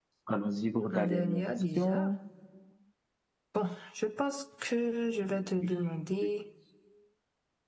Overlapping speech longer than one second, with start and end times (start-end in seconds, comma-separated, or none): 0.8-2.1